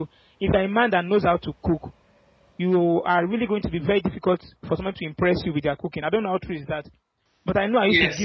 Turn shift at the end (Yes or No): Yes